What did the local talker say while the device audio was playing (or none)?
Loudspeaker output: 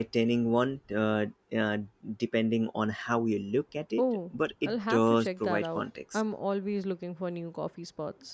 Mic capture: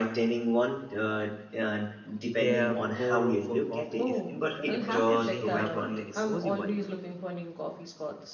Their pour over coffee is incredible and they have a really cozy vibe.